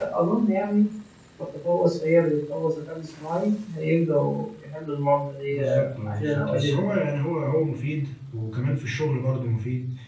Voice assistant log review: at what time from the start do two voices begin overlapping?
5.5 s

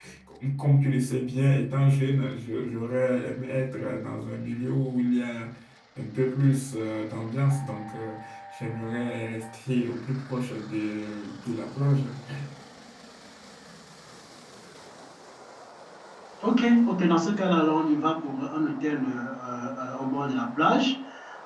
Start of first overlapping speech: none

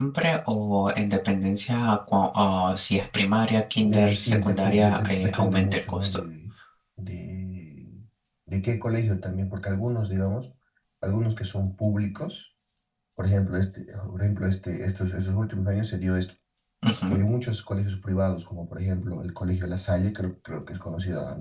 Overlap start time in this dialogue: 3.8 s

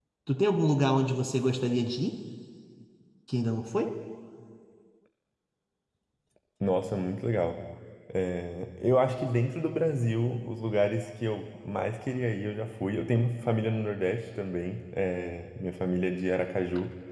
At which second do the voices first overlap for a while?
none

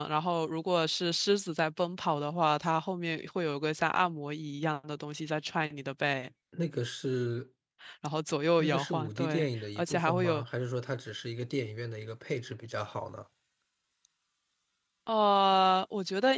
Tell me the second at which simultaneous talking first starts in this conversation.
8.6 s

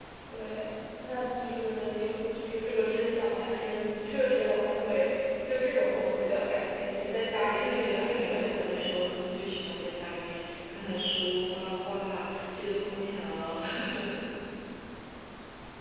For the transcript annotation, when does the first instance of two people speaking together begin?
7.6 s

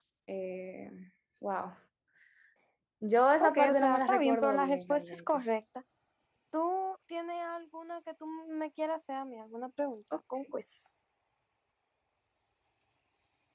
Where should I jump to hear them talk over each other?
3.4 s

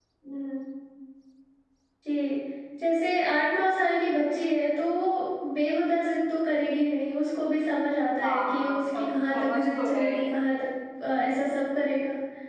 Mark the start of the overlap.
8.2 s

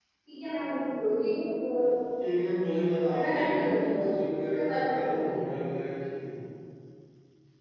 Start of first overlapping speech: 3.1 s

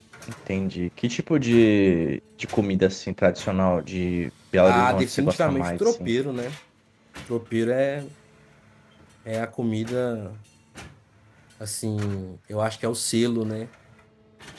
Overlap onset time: 4.7 s

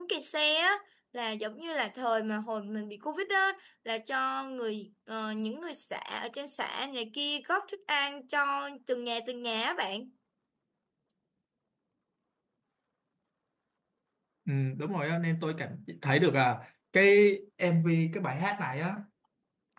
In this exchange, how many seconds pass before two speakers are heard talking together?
none

